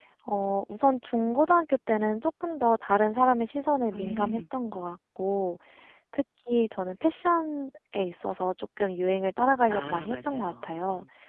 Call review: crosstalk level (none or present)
present